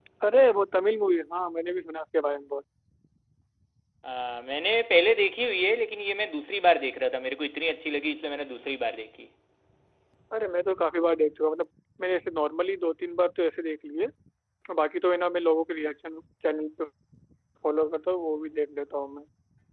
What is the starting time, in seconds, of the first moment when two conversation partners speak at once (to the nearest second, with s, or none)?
none